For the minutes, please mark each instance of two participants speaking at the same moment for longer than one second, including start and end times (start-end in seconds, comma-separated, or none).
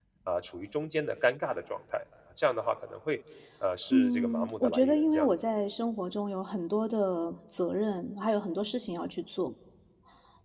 3.9-5.3